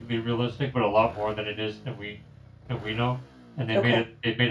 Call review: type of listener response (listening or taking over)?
listening